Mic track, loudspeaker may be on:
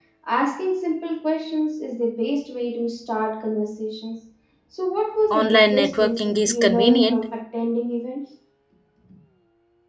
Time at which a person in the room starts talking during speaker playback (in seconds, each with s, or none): 5.3 s